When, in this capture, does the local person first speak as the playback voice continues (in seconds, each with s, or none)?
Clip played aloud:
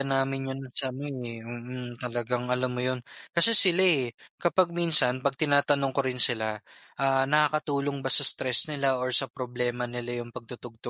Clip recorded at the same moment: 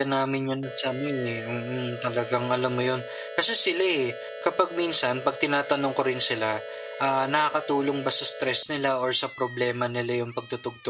none